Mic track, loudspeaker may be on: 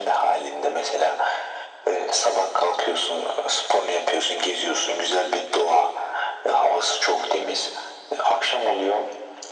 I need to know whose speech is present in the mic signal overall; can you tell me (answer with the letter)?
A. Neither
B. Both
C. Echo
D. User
C